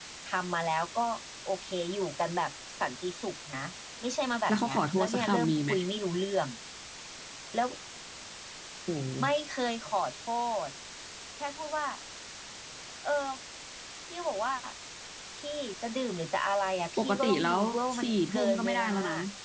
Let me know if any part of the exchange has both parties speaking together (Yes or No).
Yes